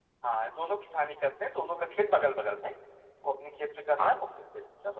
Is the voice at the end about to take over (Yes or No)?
No